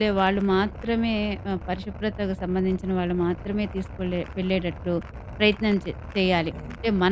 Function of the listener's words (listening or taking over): listening